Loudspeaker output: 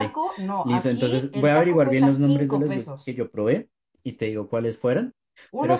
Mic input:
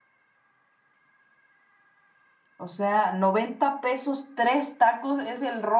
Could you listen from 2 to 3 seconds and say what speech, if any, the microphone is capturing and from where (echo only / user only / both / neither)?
user only